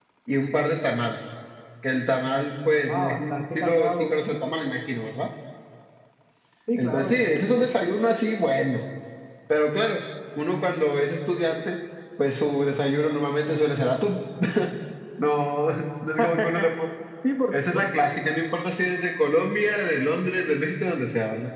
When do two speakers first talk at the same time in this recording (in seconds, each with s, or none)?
2.9 s